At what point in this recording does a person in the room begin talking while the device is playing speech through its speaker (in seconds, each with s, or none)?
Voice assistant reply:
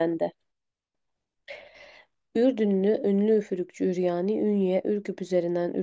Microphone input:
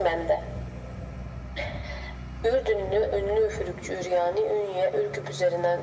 none